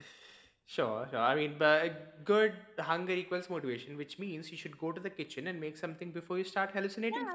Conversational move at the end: taking over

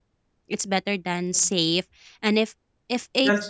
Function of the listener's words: listening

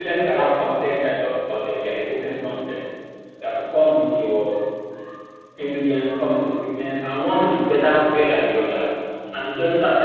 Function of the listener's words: listening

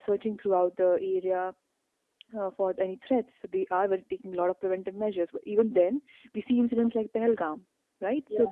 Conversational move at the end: listening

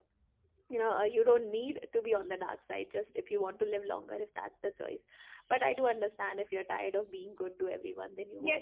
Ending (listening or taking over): taking over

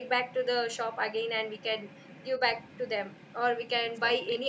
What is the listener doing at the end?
listening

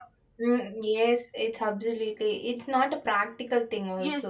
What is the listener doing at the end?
taking over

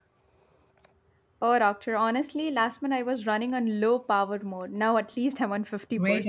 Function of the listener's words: taking over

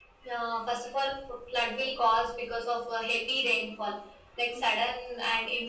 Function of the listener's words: listening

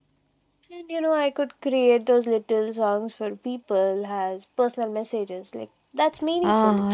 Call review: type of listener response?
taking over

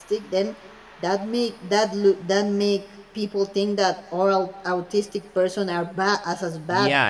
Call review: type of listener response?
taking over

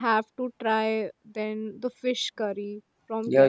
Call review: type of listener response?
taking over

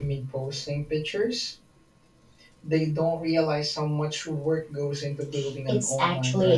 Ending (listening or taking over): taking over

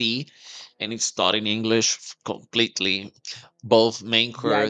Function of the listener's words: taking over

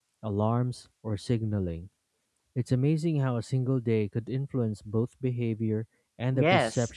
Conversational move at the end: taking over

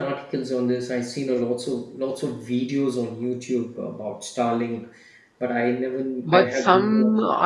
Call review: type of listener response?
taking over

